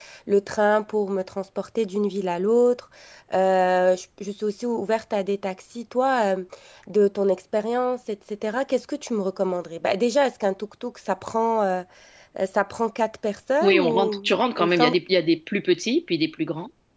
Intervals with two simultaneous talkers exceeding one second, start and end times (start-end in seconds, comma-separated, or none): 13.6-15.0